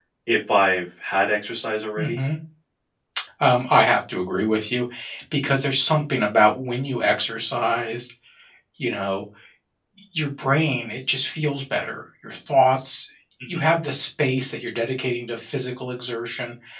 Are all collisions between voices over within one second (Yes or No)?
Yes